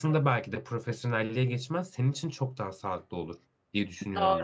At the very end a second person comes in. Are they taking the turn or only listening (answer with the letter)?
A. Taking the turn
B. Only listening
A